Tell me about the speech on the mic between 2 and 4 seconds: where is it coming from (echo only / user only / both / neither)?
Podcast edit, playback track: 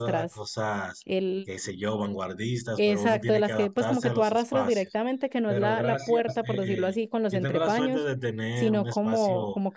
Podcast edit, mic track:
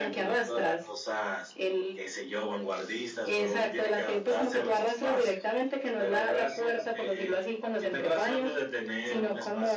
echo only